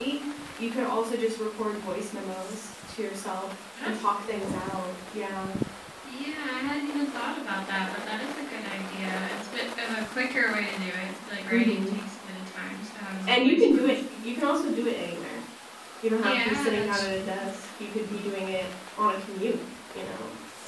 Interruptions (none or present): present